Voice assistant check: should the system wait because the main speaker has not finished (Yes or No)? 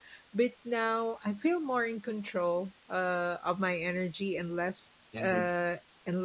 Yes